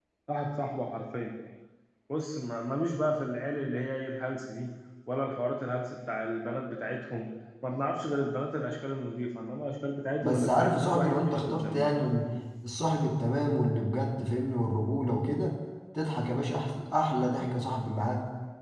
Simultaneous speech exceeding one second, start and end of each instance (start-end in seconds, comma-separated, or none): 10.2-12.0